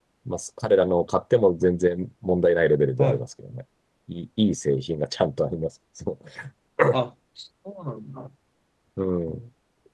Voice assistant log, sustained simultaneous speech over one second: none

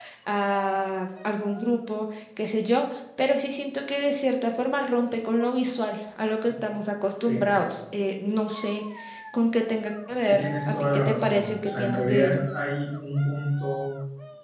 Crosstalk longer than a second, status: present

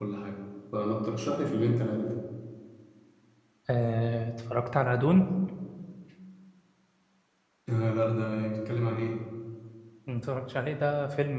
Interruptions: none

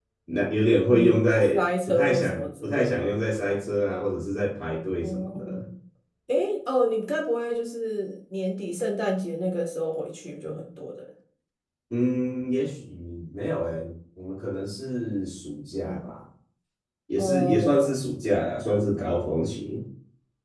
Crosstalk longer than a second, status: present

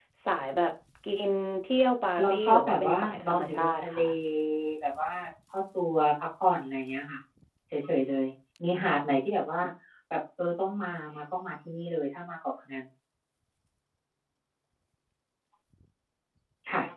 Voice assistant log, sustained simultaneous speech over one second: present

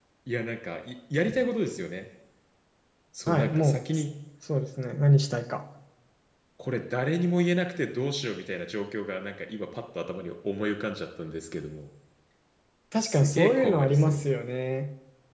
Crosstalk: present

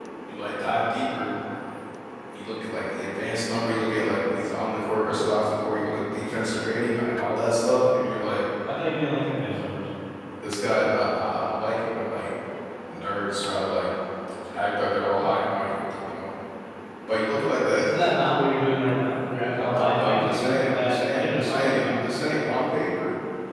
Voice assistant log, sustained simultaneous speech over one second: present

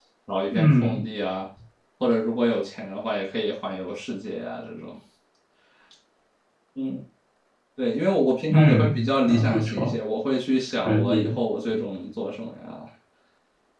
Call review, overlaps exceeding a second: present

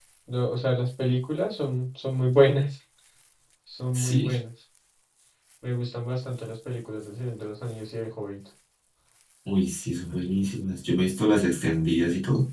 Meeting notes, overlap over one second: none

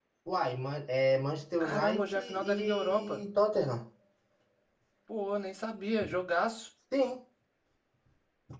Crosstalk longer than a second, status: present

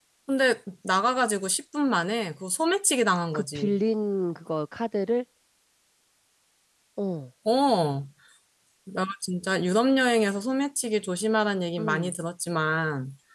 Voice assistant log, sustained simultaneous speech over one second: none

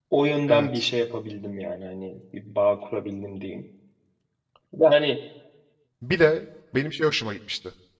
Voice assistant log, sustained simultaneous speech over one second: none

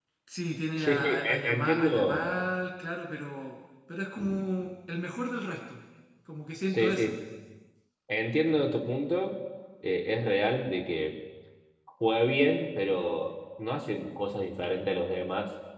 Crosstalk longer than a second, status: present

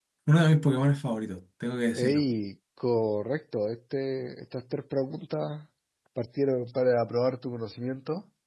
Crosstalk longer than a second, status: none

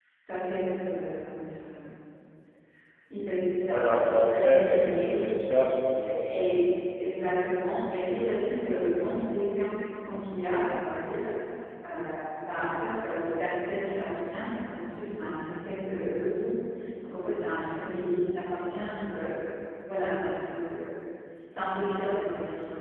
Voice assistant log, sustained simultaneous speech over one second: present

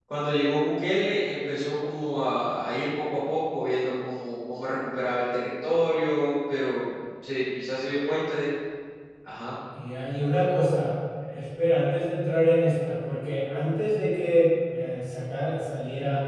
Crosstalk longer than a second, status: none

